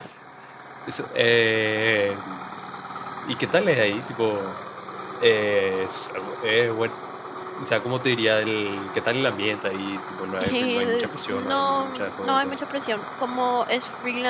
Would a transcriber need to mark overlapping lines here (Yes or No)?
Yes